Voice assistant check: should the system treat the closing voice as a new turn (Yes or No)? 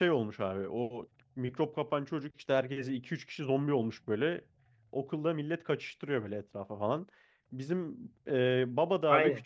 No